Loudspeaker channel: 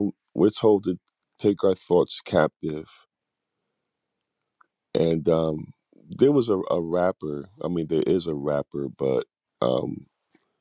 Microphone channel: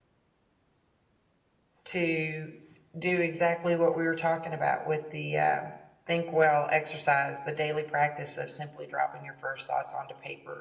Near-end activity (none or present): present